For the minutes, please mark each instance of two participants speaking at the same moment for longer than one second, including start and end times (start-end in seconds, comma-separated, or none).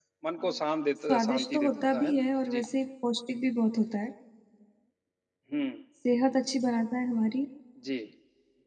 1.1-2.6